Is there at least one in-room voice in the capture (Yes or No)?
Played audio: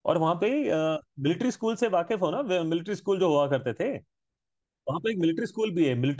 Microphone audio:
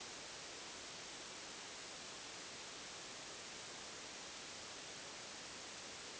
No